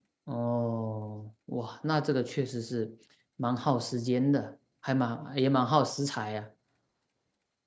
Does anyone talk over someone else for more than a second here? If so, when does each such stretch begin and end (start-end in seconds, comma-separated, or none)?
none